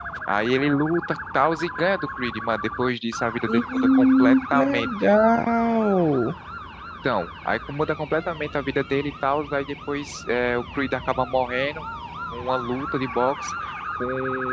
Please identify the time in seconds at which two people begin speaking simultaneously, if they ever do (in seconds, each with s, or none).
3.5 s